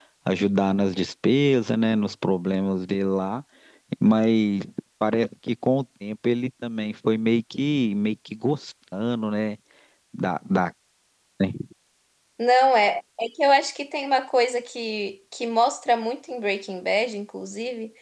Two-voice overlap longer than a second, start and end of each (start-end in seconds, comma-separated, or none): none